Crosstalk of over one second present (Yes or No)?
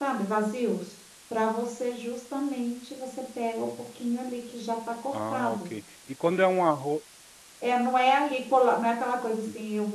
No